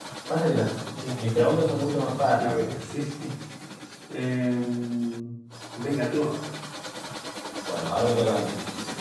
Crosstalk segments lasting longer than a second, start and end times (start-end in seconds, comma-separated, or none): 1.3-2.6